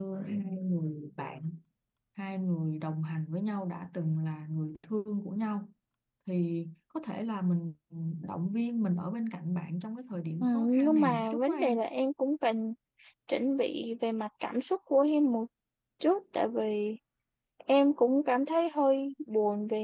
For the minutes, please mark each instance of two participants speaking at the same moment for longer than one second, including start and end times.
10.4-11.8

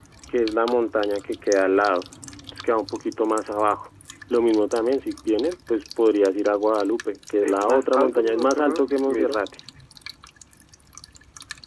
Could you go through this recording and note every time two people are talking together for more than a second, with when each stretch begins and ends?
7.4-9.4

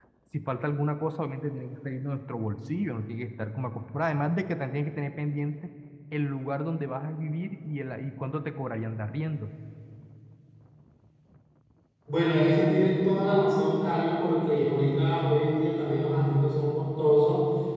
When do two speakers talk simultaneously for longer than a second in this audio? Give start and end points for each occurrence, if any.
none

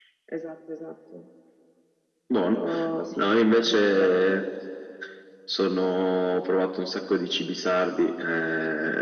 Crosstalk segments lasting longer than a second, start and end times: 3.1-4.4

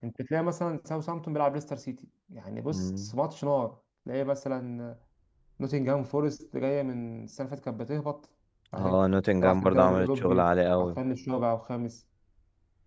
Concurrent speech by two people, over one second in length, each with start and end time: 9.4-11.0

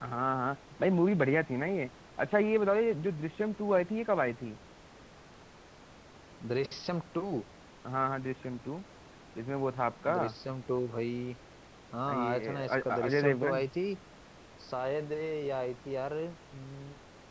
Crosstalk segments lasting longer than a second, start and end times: 12.1-13.7

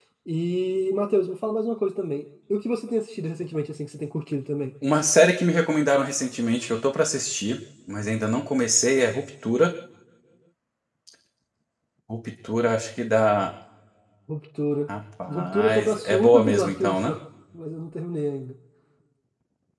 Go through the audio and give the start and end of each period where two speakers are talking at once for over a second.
15.3-17.1

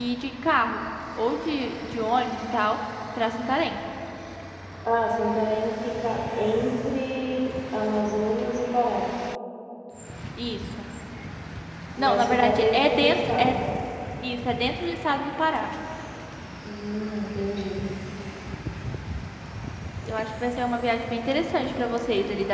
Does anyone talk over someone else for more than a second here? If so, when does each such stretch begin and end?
12.0-13.6

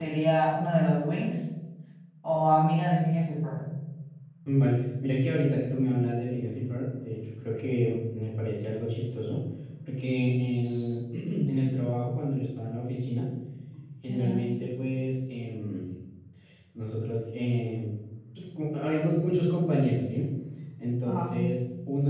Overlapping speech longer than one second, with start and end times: none

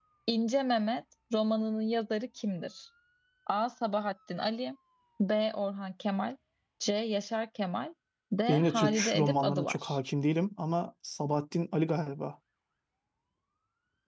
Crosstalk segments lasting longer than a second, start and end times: 8.5-10.0

